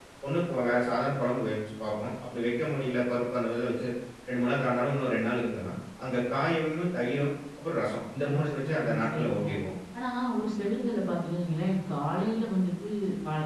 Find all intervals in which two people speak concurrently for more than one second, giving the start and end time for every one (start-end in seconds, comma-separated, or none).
8.3-9.5